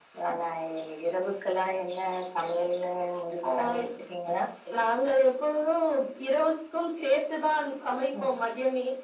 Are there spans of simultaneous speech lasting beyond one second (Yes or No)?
No